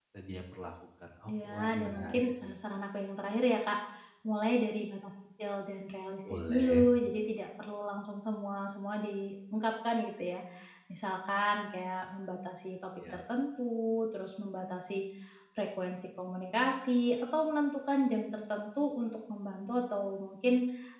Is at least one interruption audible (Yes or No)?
Yes